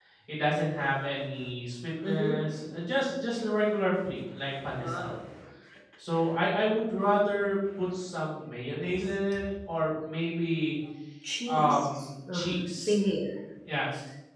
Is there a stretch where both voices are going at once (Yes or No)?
Yes